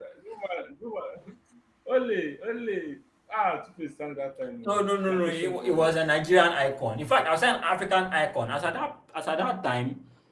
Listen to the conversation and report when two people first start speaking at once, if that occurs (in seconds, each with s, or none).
4.6 s